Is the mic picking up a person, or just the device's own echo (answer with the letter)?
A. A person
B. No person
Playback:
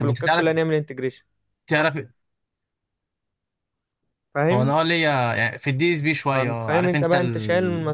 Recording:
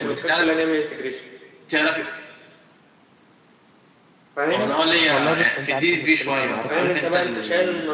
A